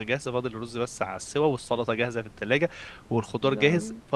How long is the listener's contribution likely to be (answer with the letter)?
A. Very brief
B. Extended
A